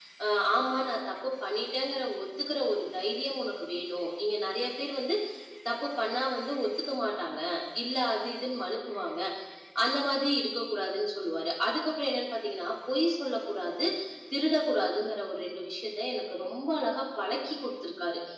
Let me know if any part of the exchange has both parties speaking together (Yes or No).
No